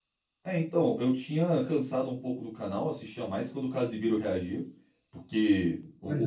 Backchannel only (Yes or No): Yes